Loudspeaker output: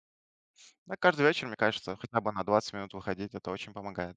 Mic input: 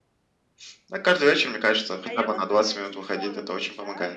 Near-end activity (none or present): present